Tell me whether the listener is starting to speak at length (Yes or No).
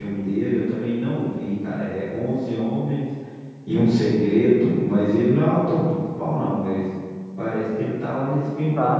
Yes